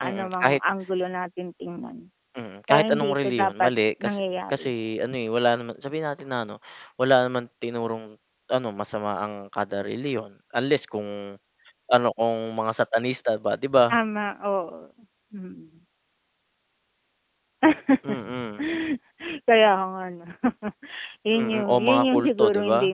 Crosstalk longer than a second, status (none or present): present